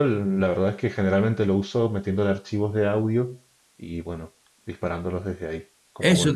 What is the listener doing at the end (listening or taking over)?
taking over